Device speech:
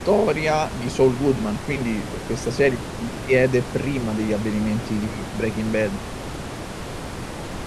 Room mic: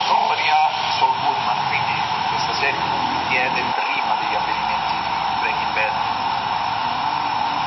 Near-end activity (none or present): none